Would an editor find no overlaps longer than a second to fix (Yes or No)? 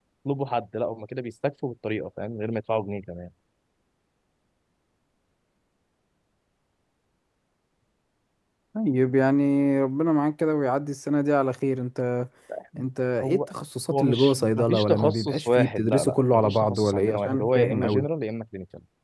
No